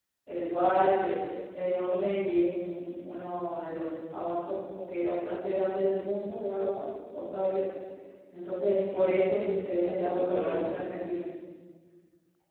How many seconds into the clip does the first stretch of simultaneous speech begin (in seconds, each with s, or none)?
9.0 s